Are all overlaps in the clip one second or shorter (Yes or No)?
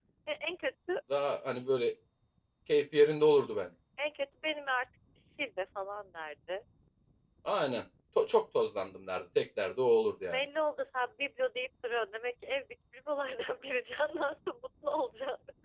Yes